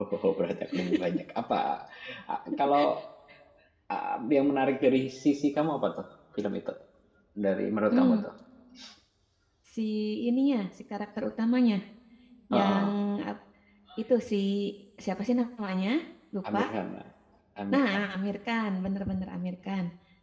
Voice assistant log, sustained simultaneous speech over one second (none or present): none